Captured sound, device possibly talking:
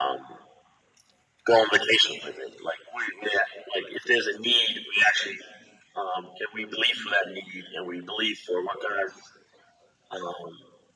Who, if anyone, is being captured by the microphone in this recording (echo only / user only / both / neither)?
echo only